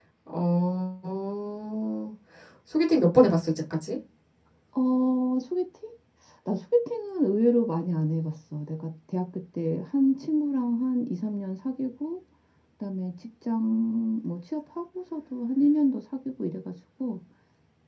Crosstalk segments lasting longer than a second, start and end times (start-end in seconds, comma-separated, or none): none